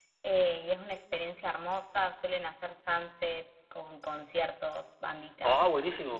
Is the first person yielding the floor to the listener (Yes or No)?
Yes